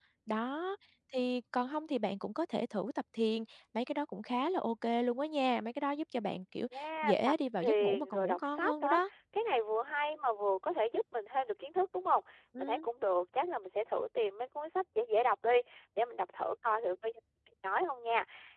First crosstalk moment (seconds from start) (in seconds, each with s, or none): 7.0 s